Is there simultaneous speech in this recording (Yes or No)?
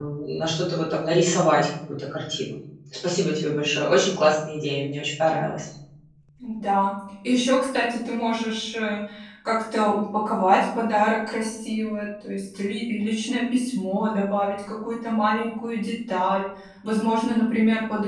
No